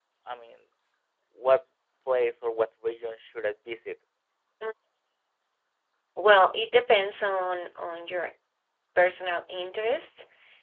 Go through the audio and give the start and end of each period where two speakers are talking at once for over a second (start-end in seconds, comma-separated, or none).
none